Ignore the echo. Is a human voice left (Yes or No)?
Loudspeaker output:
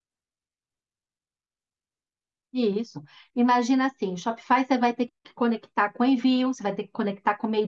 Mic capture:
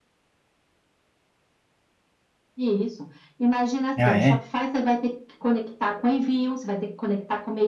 Yes